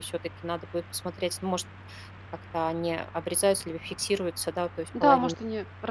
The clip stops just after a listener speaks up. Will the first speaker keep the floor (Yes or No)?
No